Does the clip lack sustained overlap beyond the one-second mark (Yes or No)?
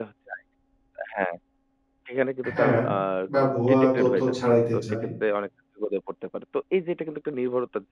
No